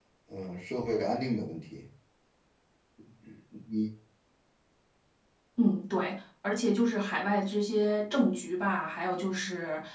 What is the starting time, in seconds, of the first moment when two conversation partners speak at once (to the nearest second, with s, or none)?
none